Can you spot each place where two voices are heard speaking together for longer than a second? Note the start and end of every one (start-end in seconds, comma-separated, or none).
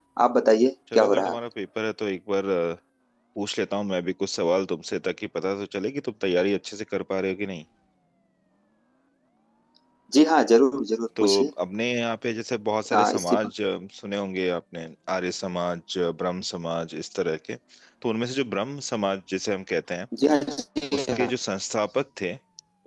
none